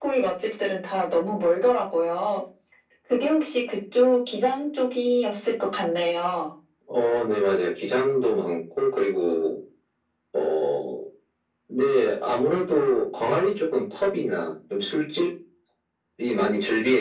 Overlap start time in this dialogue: none

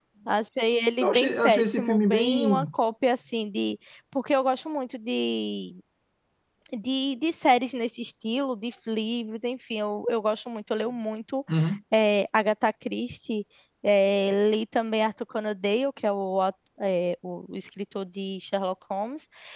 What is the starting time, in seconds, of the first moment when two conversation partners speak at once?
1 s

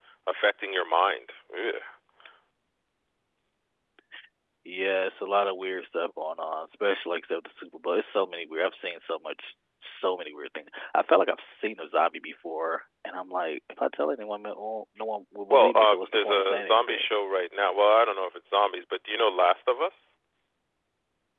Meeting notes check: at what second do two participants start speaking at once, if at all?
16 s

